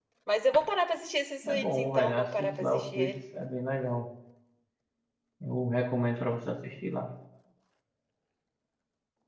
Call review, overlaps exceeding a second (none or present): present